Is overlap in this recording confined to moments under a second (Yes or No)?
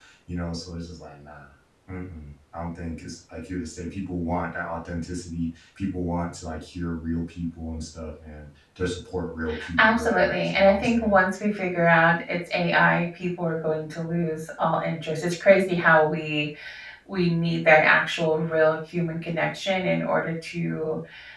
No